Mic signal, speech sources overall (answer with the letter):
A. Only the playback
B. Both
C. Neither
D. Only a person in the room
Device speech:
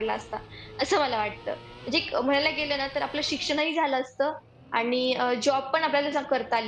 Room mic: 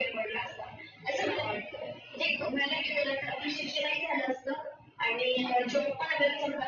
A